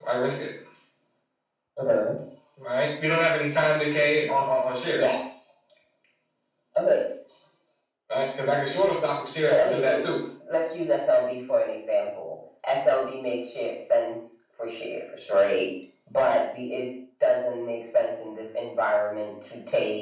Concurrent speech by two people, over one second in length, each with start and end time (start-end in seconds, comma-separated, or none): none